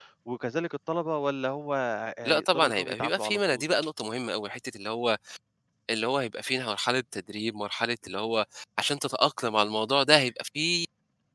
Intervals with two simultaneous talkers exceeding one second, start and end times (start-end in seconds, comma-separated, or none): 2.2-3.6